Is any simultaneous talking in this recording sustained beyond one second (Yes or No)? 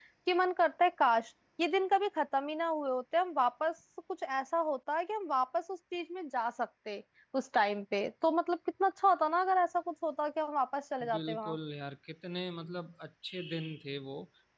No